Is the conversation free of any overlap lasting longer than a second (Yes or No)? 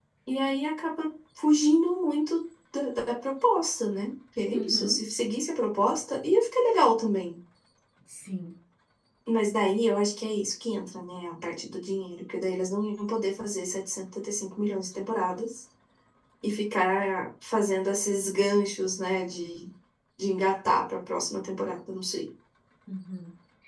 Yes